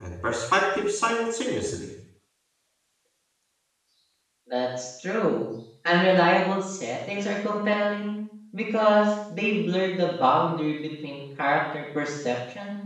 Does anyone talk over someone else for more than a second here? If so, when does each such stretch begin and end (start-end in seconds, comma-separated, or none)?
none